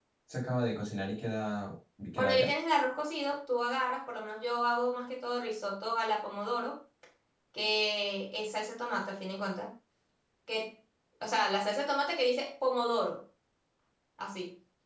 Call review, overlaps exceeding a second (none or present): none